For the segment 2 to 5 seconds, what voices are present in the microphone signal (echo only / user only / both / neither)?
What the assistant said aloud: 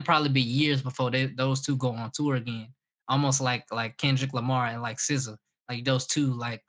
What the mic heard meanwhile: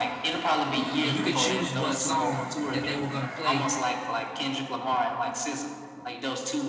both